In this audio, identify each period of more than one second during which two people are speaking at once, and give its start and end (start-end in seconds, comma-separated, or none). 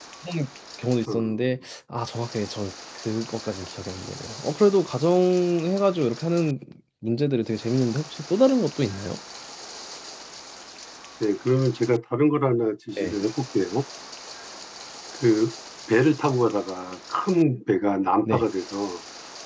none